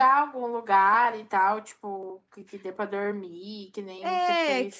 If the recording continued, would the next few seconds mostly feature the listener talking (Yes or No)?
Yes